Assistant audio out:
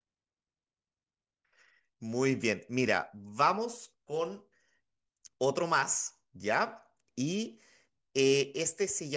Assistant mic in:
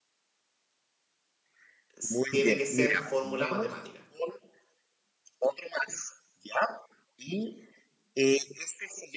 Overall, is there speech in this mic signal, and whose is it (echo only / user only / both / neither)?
both